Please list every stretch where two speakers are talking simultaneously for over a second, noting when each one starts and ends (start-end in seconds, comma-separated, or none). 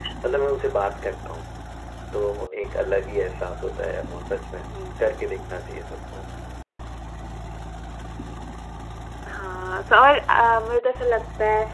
none